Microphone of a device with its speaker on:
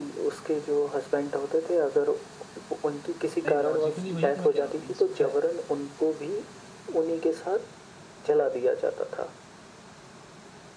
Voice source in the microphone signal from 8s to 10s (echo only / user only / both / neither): echo only